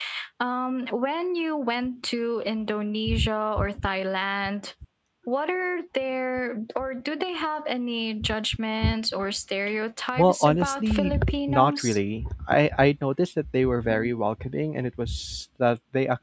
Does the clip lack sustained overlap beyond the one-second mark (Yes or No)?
No